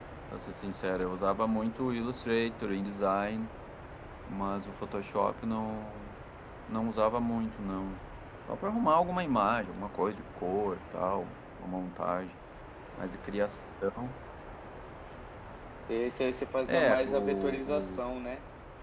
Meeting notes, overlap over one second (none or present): present